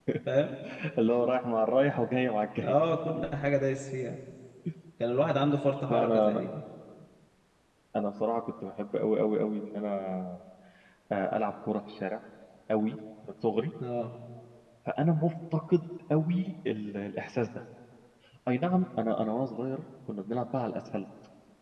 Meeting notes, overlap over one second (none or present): none